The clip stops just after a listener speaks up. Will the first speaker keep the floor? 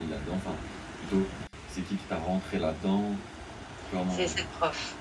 No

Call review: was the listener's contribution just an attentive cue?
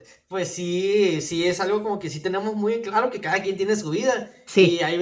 Yes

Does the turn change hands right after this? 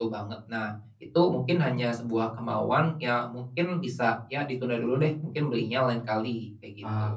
Yes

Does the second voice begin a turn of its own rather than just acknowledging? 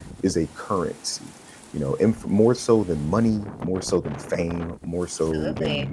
No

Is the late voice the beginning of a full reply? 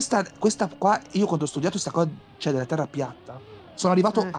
No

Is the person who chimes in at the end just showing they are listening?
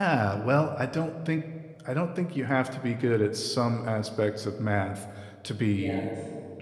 Yes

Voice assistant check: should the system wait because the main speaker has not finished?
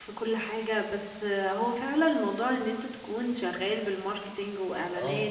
Yes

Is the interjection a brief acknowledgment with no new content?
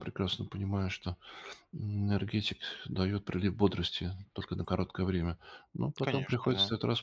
Yes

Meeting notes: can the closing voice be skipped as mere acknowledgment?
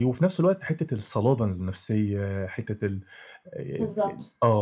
No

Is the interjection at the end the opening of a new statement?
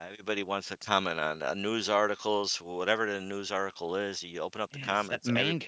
Yes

